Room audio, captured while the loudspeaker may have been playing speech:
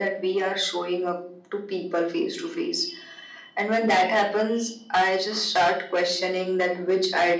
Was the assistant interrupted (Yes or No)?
No